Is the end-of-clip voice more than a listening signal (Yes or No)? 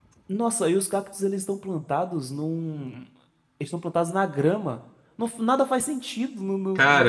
Yes